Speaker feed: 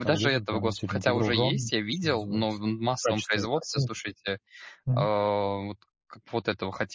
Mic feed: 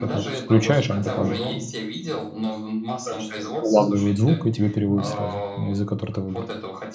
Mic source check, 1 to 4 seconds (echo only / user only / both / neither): both